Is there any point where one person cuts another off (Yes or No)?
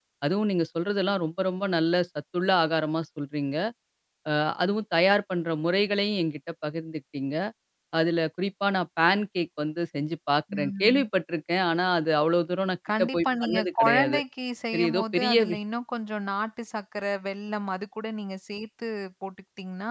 Yes